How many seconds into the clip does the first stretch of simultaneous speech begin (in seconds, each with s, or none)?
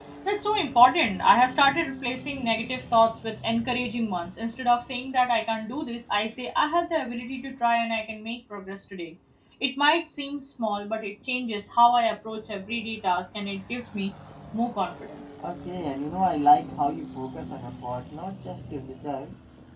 none